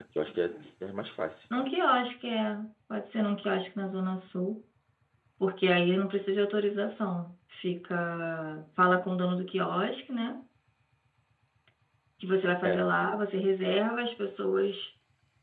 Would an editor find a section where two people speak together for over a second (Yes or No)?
No